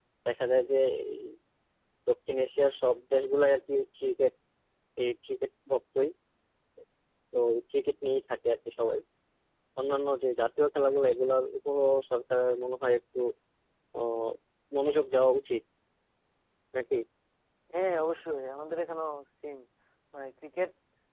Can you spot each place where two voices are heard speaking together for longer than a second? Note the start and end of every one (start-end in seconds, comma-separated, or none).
none